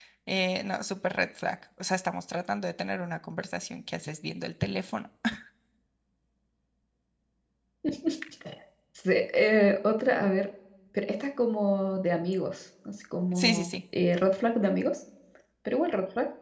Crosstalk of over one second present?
No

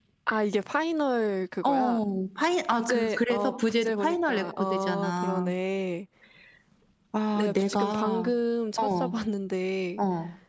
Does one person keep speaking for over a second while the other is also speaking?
Yes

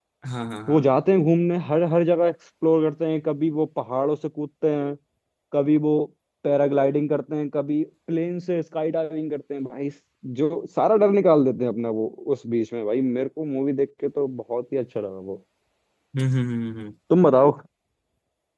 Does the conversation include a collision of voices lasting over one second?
No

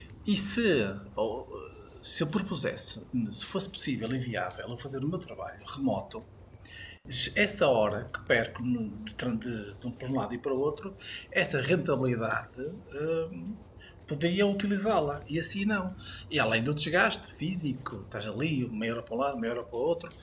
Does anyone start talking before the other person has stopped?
No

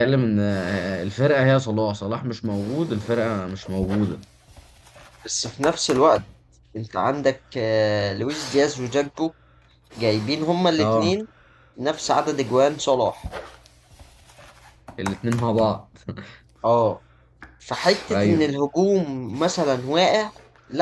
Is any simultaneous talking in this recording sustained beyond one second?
No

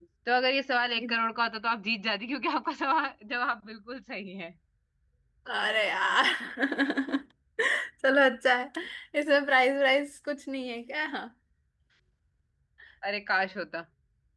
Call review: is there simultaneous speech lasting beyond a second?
No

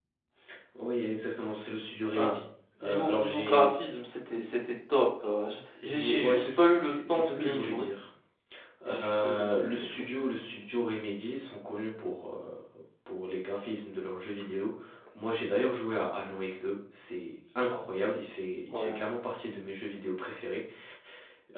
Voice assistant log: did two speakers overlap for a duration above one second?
Yes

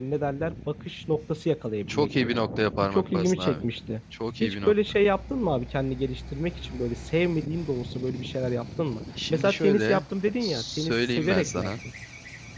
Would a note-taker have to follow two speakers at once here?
Yes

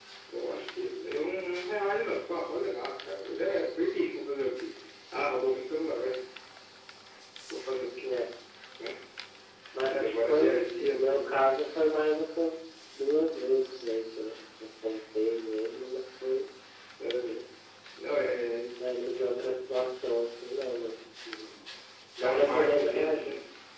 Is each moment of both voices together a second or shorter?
No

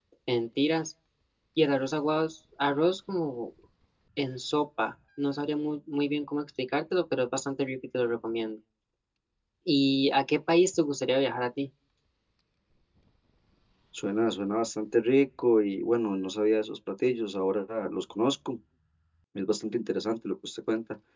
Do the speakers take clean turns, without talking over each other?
Yes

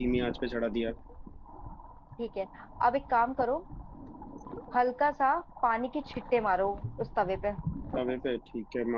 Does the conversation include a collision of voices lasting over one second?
No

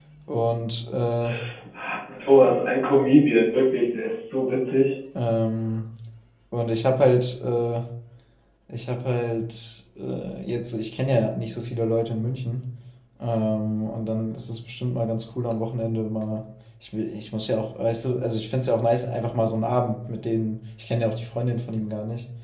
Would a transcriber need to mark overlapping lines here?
No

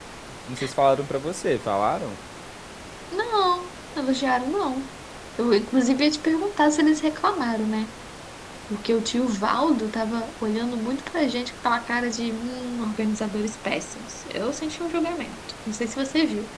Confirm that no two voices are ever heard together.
Yes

